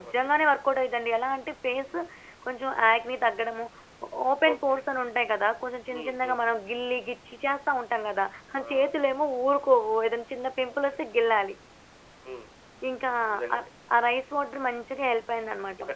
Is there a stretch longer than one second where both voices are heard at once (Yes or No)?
No